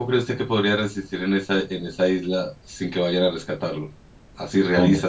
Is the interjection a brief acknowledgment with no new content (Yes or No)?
Yes